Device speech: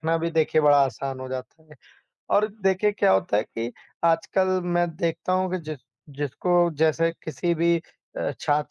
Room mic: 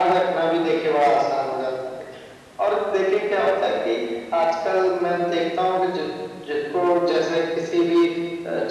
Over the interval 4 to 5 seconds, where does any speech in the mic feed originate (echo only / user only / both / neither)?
echo only